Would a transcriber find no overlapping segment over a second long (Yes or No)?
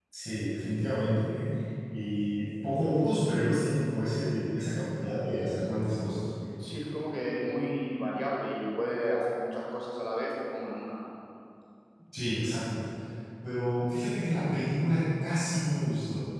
Yes